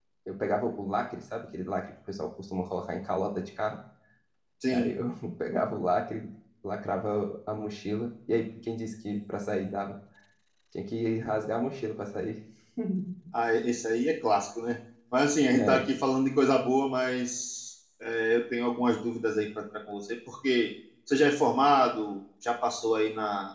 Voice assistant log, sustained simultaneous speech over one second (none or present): none